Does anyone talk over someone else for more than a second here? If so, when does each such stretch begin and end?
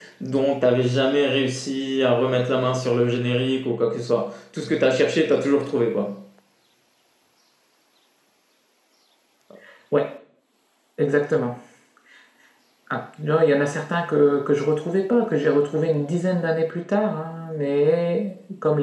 none

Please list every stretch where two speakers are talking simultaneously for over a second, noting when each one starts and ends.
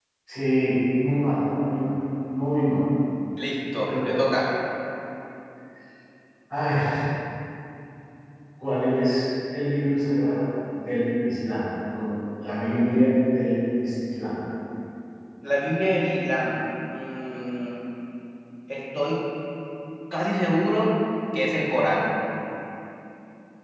none

